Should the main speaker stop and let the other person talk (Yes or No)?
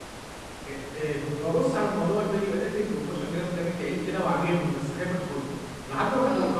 No